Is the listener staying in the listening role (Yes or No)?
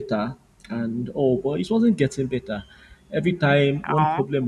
Yes